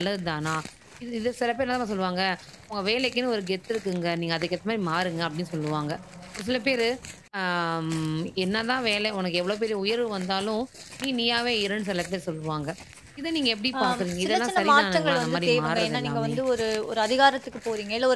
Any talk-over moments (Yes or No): Yes